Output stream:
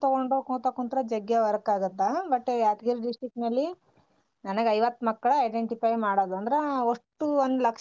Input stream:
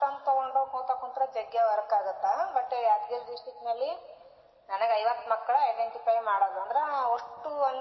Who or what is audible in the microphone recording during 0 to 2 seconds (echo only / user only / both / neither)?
echo only